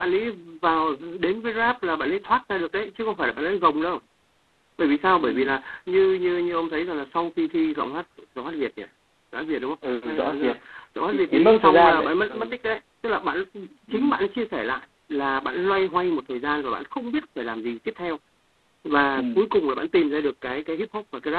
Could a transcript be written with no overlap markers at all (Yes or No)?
No